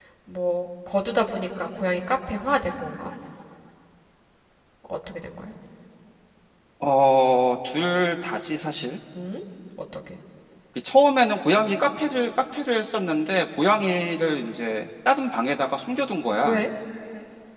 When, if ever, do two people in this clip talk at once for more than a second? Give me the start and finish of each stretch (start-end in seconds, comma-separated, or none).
none